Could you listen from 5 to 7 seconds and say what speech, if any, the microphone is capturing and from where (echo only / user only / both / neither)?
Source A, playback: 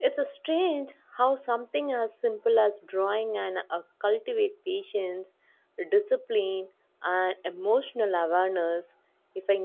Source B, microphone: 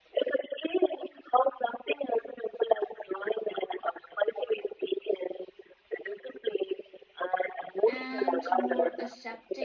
echo only